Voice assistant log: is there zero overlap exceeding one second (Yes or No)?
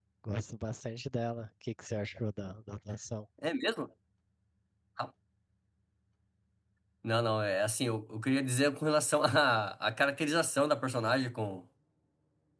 Yes